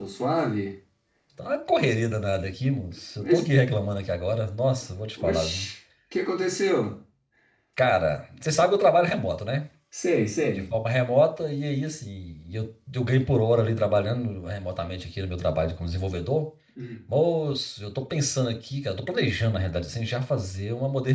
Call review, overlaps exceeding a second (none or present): none